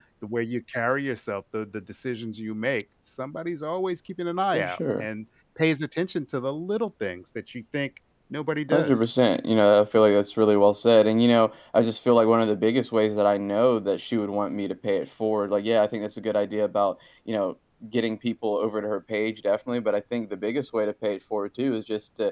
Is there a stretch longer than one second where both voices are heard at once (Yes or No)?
No